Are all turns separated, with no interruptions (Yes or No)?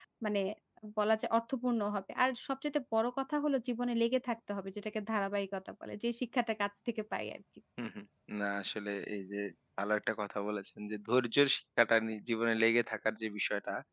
Yes